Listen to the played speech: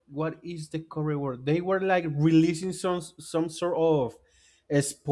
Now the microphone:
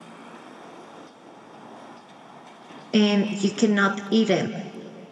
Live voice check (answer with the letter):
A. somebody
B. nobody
A